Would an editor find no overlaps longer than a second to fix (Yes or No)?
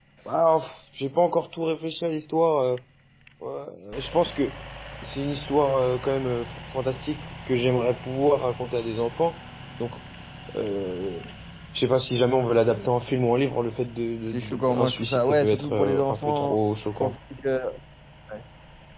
No